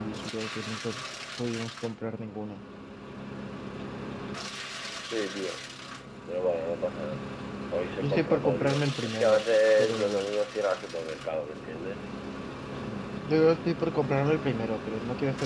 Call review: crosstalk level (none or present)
present